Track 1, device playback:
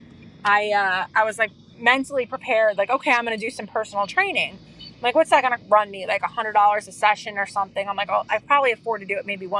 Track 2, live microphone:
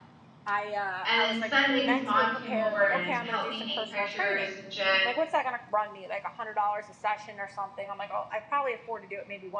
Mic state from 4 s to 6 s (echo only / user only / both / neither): both